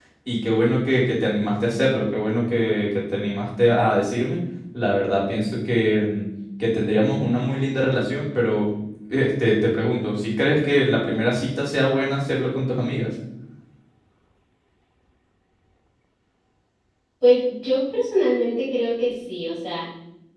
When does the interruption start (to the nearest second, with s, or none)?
none